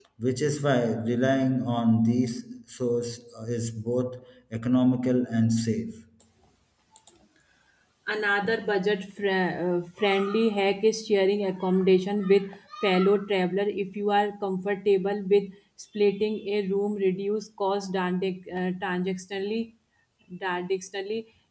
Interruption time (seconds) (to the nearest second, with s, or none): none